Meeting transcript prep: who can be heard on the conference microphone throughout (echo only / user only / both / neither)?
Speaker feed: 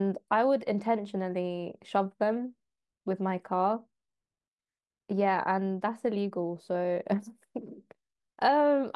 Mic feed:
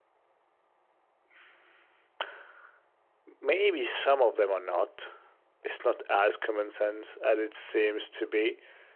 user only